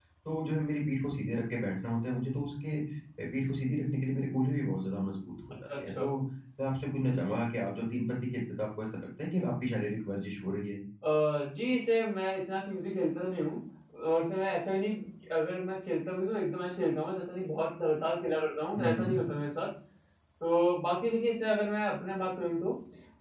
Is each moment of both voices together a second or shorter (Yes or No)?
Yes